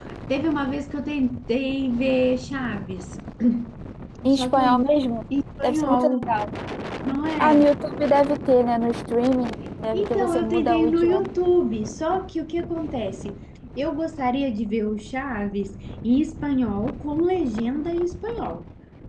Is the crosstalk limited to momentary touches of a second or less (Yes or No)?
No